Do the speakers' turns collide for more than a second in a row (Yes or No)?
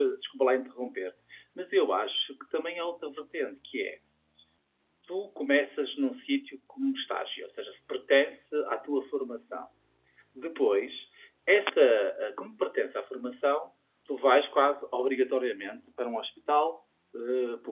No